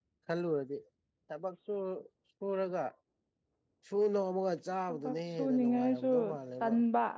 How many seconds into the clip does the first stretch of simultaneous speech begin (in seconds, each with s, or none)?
4.9 s